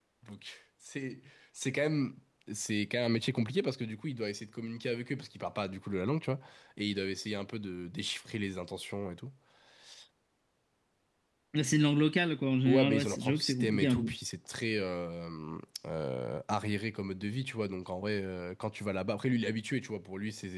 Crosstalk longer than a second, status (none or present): present